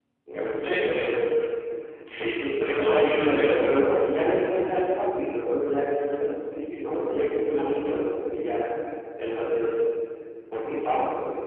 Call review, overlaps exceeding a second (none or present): present